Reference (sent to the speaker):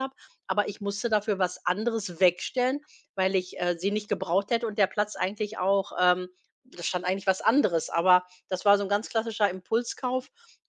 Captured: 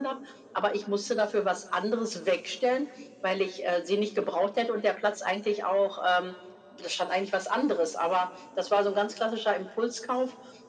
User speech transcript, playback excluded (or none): none